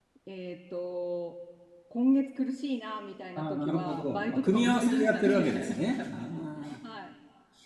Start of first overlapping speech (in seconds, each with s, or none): 3.4 s